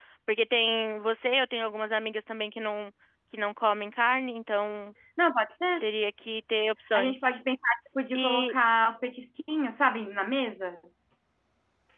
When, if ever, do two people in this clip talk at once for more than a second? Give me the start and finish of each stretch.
none

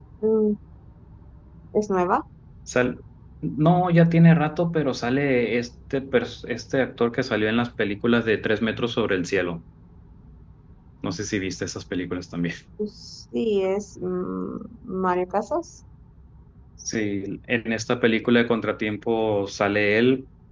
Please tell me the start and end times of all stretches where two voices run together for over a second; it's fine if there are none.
none

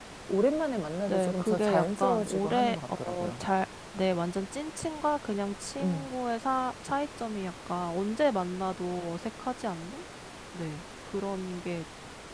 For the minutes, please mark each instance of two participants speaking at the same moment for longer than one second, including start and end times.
1.1-3.4

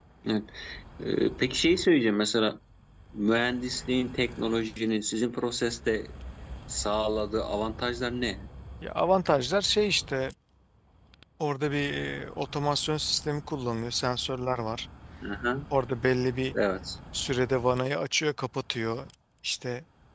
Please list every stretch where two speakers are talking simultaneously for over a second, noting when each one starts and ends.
none

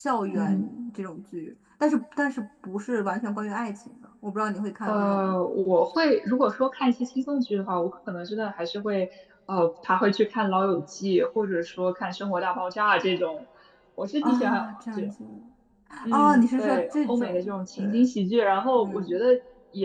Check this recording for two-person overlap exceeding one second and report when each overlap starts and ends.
16.1-18.1

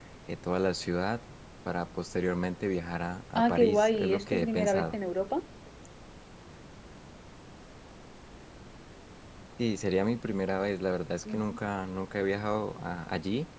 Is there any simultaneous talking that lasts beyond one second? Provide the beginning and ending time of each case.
3.4-5.0

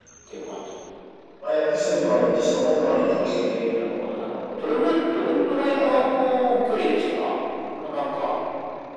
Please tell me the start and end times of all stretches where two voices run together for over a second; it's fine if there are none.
none

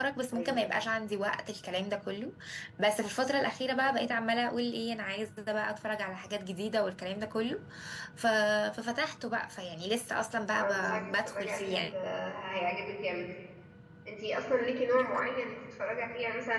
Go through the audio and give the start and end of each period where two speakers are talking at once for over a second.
10.6-11.8

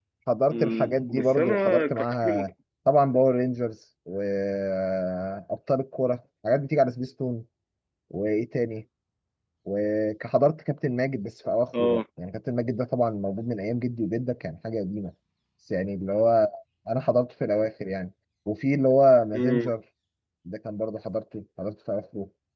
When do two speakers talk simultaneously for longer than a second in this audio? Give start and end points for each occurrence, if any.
0.5-2.5

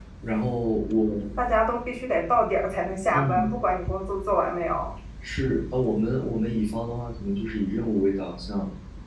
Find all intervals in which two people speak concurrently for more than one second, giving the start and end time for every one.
none

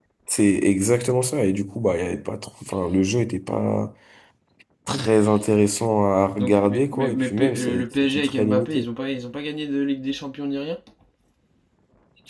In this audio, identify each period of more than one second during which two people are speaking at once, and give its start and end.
6.4-8.8

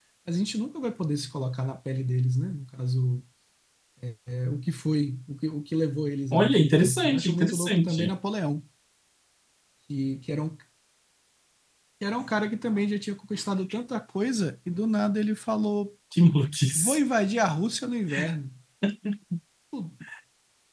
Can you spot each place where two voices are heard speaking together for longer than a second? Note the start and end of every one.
6.3-8.1

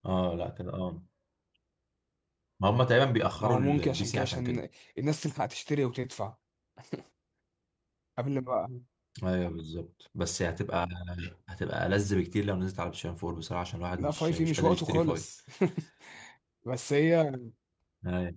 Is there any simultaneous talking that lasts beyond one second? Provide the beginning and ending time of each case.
3.4-4.6, 14.0-15.2

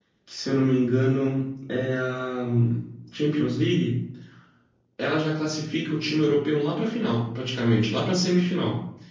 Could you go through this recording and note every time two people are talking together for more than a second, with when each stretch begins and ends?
none

